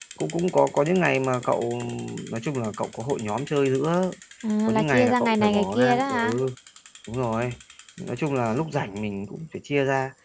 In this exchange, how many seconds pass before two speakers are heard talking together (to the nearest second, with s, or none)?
5 s